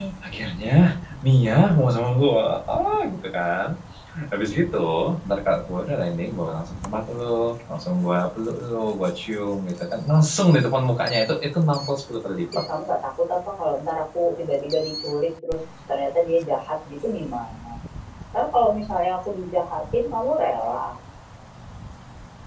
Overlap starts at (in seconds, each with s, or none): none